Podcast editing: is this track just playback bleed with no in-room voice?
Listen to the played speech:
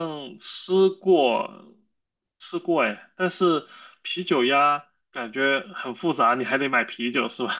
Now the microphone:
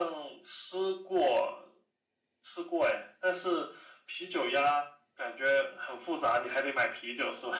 Yes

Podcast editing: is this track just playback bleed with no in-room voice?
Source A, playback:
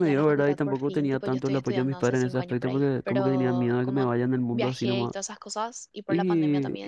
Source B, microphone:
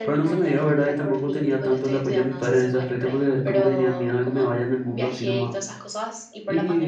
Yes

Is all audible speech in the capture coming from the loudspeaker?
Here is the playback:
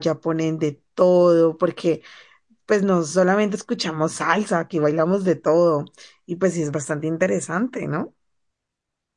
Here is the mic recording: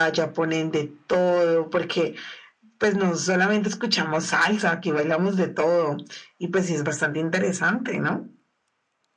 Yes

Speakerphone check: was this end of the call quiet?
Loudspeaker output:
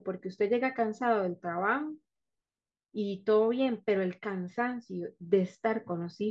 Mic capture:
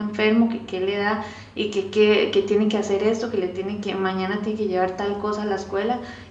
No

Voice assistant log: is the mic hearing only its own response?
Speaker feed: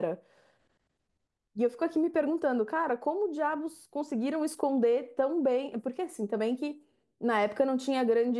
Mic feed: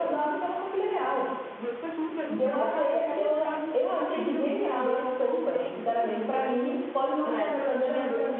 No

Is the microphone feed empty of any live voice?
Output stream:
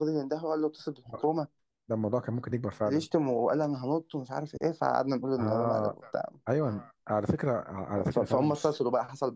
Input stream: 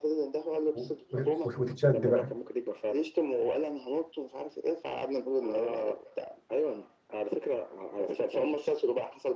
No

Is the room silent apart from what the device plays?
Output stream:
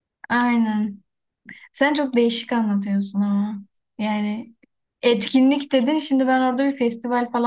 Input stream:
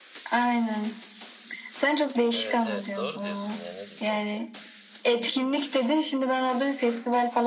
No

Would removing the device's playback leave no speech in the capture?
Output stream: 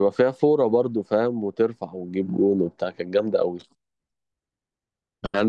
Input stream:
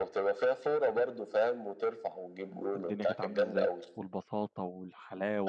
No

